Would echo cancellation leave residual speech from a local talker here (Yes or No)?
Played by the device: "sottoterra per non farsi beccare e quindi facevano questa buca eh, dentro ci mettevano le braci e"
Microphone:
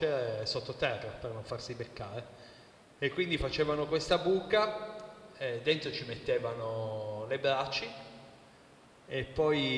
No